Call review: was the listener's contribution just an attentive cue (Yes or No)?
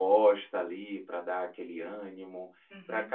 Yes